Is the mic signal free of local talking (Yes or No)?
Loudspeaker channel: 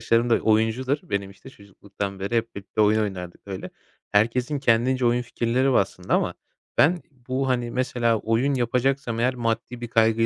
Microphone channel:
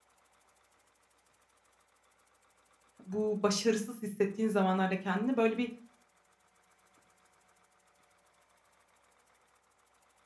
No